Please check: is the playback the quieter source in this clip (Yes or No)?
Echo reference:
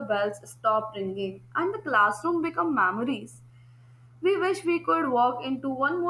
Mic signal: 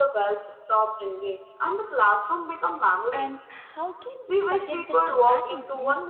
No